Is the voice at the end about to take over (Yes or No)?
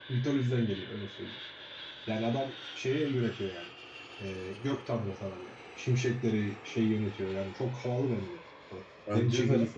No